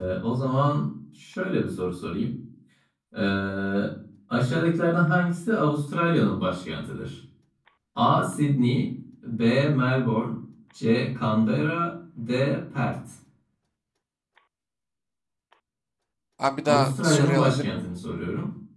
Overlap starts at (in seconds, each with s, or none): 16.6 s